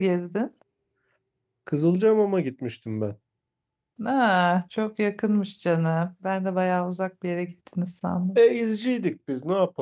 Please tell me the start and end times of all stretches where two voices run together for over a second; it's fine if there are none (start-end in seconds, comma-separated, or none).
none